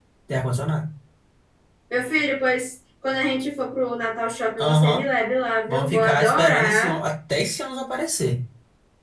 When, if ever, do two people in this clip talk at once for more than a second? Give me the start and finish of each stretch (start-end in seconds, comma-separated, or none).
5.7-7.0